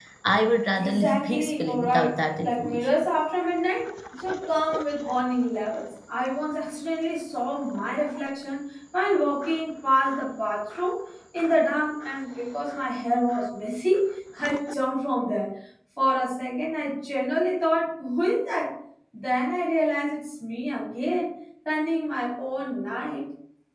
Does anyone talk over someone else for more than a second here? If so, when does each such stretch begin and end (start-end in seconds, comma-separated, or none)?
0.8-2.9